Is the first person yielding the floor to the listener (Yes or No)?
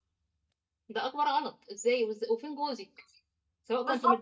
No